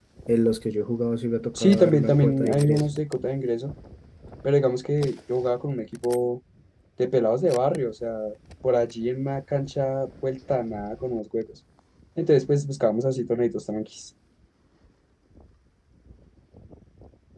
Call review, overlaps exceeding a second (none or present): present